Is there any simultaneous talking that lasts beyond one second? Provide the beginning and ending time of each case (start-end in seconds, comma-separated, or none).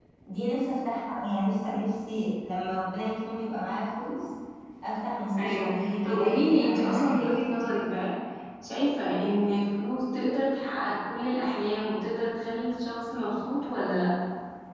5.4-7.7